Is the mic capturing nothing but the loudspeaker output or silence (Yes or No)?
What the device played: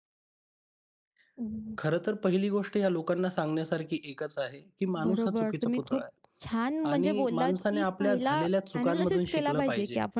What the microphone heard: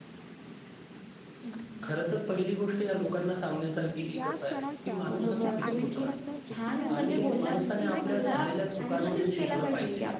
No